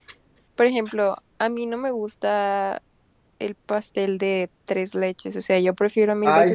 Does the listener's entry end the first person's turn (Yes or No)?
Yes